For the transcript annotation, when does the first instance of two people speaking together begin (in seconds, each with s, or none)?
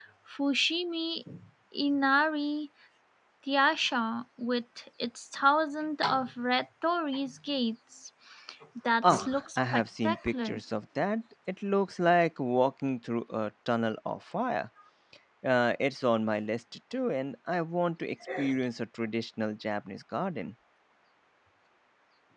9.0 s